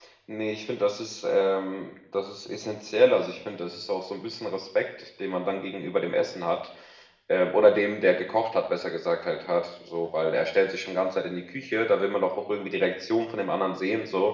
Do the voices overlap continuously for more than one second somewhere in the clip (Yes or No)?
No